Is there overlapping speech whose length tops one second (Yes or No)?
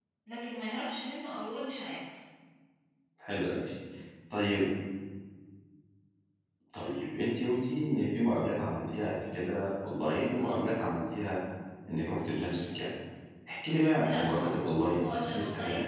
Yes